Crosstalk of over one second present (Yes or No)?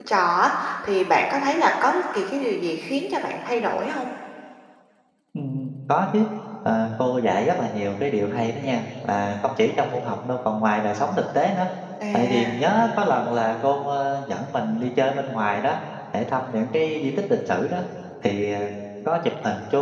No